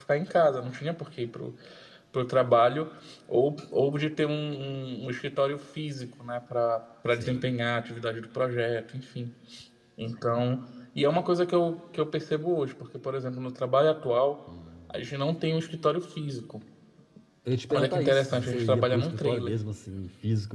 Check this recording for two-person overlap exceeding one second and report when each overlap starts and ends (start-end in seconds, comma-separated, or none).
17.7-19.6